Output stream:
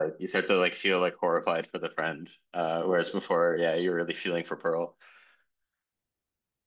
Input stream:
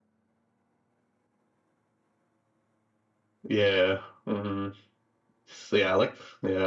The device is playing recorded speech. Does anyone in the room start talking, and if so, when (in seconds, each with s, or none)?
3.5 s